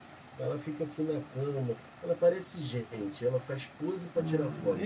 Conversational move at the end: taking over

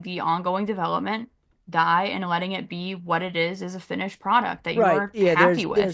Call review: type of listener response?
taking over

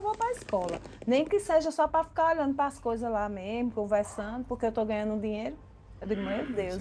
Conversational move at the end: listening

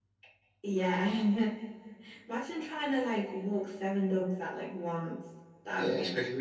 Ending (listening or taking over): taking over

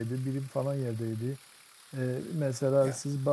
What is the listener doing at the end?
listening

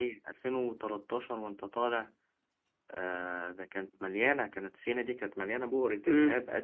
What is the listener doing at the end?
listening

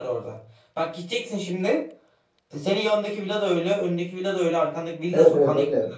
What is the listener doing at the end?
taking over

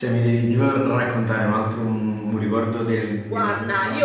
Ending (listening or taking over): taking over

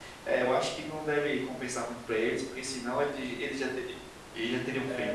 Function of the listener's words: taking over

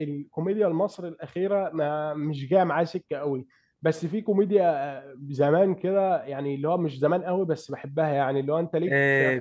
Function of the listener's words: taking over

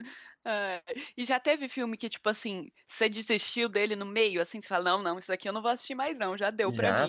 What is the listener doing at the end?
taking over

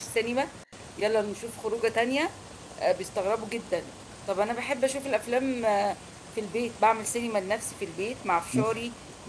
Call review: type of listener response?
listening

